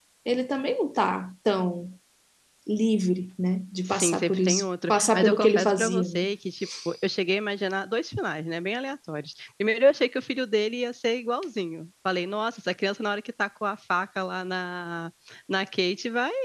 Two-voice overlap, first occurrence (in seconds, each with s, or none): 3.9 s